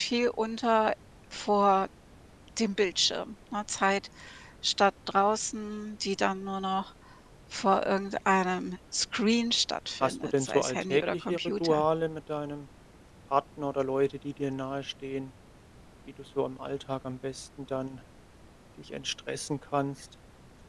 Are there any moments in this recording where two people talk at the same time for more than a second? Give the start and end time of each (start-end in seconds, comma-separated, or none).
10.0-11.8